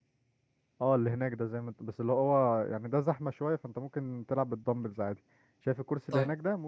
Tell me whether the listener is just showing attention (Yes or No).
Yes